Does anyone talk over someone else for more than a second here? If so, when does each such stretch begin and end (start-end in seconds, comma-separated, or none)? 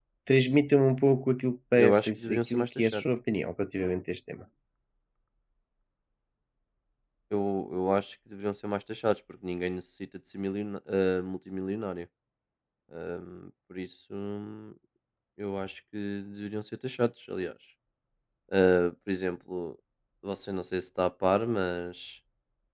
1.7-3.0